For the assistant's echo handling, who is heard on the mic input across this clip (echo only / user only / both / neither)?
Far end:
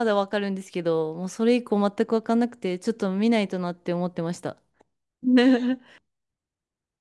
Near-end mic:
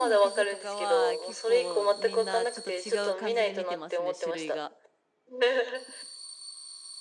both